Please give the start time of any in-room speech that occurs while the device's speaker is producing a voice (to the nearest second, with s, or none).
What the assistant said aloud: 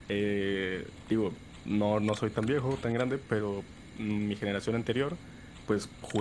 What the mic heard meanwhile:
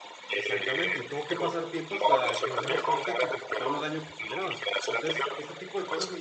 0 s